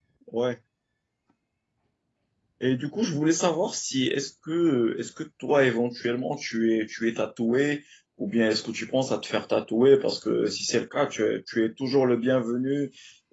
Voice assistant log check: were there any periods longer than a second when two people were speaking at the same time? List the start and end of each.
none

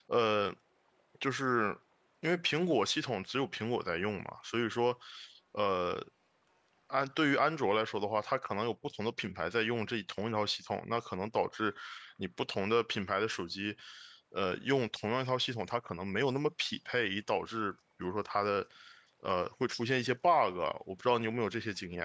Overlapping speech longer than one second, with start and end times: none

